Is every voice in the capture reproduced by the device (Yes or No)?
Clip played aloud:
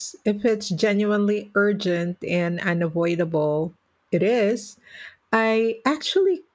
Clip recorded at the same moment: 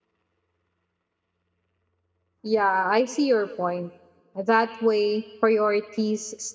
No